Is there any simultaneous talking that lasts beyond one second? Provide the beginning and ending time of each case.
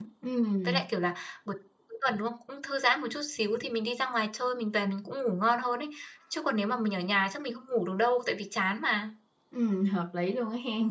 none

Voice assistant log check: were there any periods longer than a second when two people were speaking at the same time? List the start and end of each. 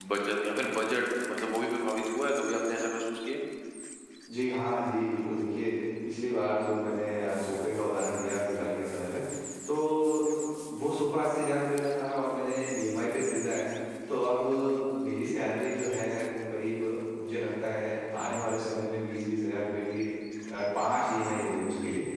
none

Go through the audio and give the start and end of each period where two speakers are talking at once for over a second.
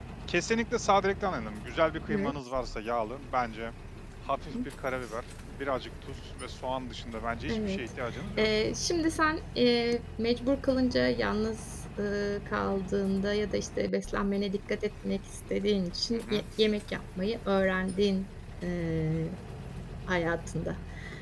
none

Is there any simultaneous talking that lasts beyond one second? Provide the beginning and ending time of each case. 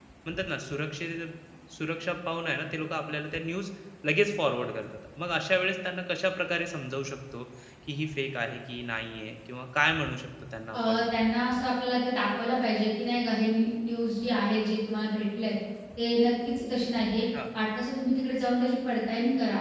none

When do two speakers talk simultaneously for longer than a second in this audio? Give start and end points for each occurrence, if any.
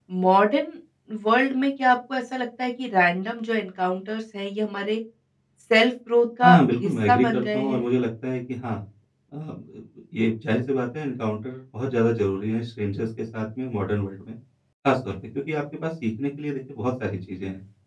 6.4-7.9

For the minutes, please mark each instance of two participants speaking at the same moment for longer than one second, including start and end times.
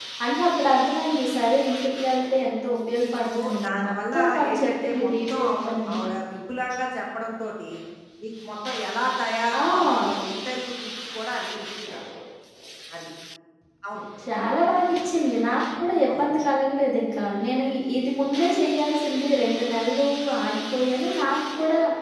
3.0-6.0

